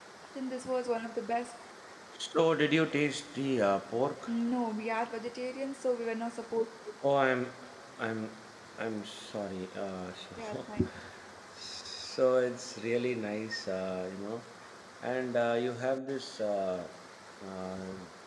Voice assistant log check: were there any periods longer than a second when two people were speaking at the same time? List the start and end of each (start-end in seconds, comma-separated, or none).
none